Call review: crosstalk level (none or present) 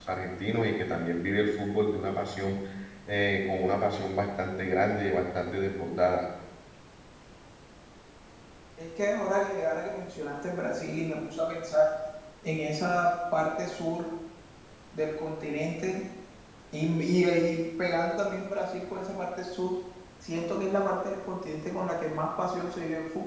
none